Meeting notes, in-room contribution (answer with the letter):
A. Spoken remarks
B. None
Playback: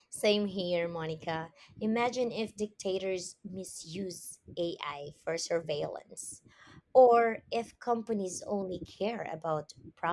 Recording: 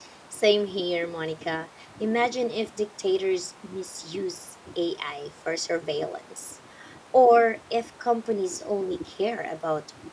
B